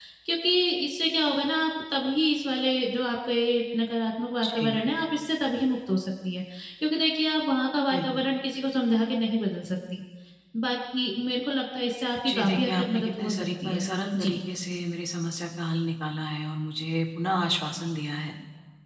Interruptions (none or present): present